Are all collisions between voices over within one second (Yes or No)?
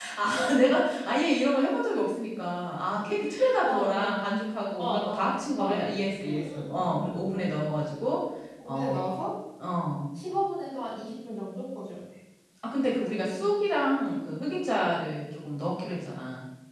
No